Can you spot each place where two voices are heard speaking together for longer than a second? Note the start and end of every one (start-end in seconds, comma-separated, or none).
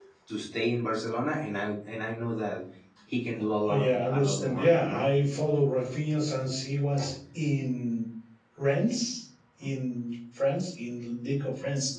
3.7-5.1